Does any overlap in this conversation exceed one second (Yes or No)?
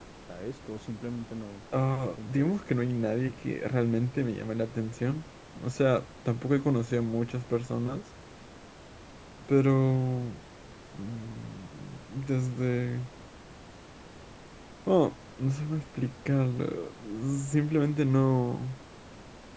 No